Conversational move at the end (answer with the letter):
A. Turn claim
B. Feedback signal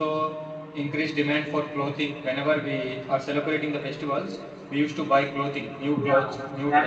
A